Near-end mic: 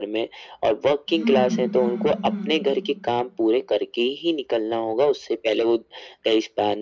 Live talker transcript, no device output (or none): हुँ, हुँ, हुँ।